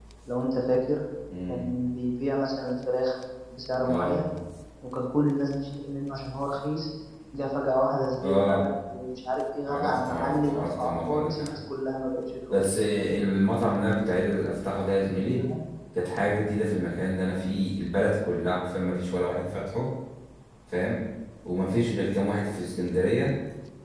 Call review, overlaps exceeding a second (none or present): present